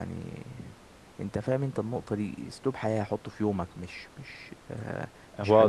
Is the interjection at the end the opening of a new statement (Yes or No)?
Yes